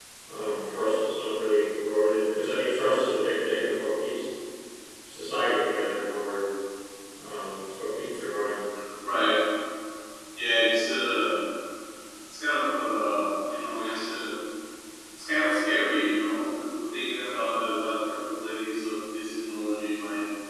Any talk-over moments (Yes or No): No